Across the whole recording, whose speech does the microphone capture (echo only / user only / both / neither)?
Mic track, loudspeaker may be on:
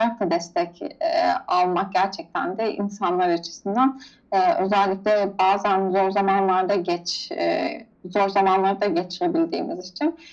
echo only